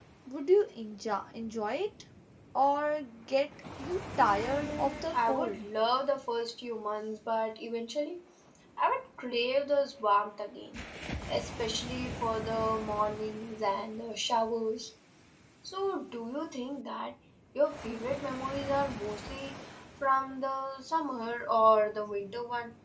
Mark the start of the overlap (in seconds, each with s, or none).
4.2 s